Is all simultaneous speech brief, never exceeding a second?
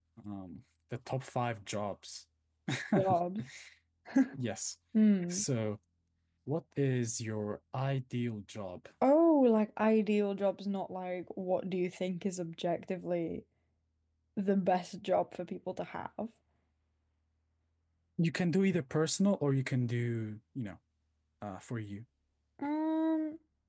Yes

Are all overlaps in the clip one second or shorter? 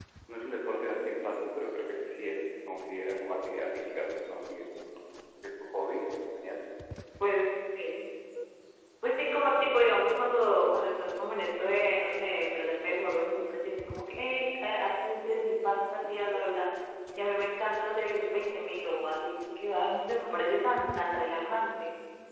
Yes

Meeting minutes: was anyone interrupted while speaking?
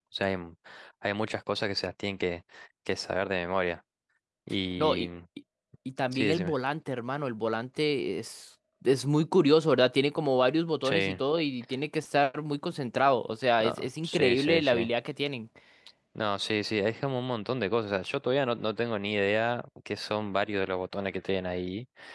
Yes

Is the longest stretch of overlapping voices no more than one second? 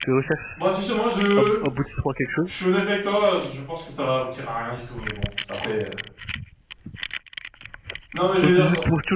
Yes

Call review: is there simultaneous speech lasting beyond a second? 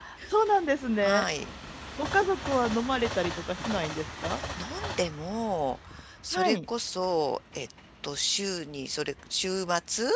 No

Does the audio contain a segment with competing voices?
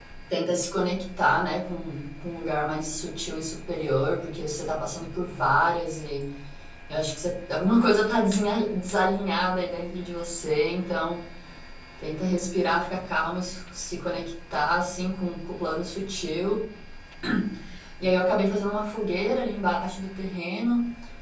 No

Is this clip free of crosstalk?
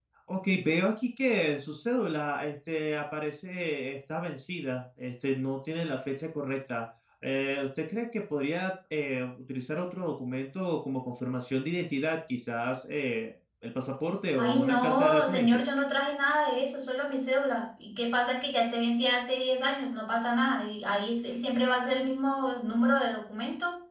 No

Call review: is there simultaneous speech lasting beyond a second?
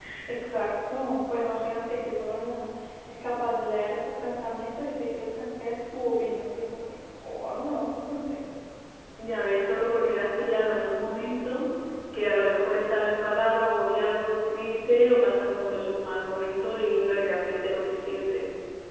No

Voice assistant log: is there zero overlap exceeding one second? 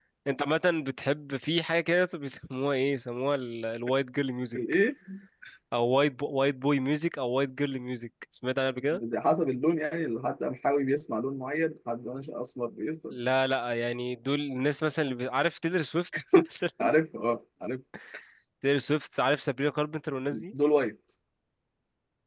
Yes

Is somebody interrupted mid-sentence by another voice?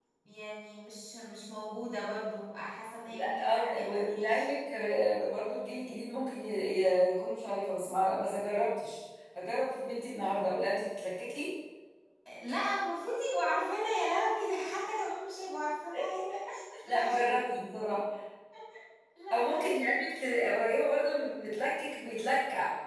Yes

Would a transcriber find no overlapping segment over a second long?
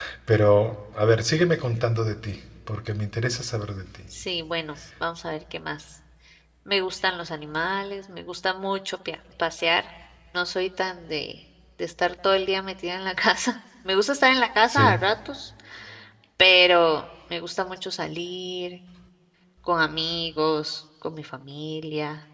Yes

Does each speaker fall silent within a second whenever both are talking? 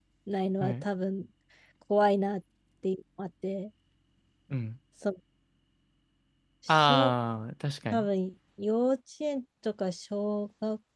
Yes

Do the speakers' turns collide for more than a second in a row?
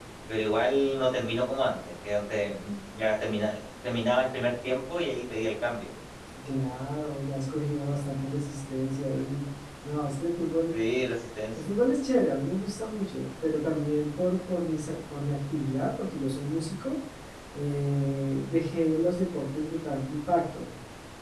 No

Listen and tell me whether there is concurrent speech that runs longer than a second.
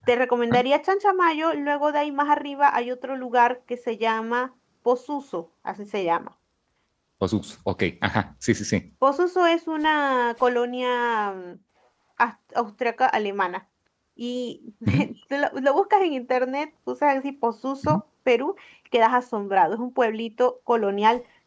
No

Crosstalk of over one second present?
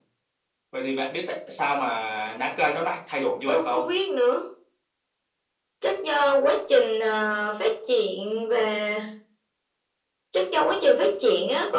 No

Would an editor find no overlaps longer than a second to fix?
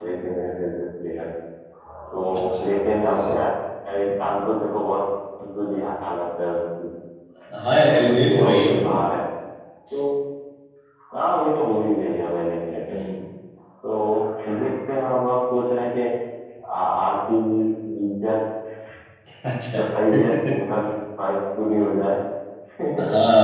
No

